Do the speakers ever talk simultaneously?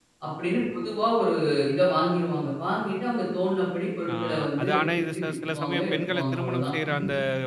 Yes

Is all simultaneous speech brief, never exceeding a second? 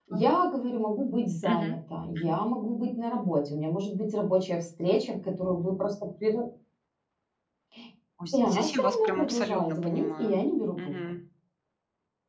No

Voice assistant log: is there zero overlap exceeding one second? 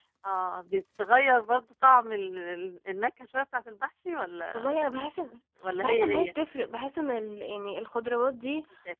Yes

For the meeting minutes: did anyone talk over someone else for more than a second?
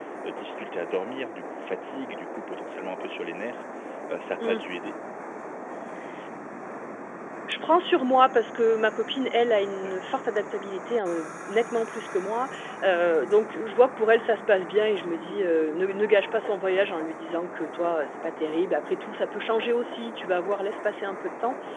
No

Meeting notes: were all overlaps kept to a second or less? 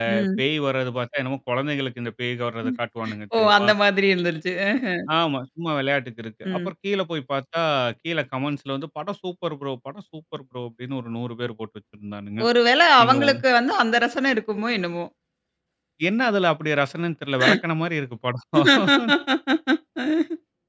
Yes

